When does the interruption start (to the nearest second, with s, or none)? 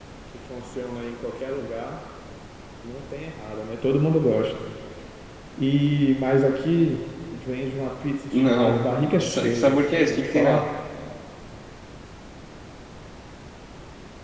8 s